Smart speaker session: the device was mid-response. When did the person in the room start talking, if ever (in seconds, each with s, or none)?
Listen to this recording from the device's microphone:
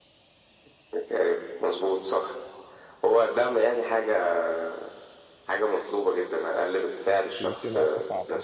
7.4 s